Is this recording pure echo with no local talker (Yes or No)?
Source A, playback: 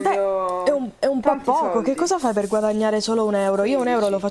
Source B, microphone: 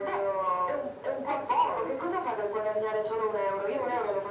Yes